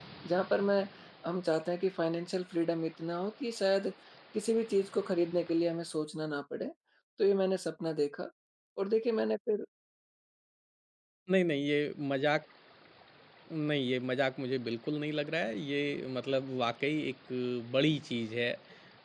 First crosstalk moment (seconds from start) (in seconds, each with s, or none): none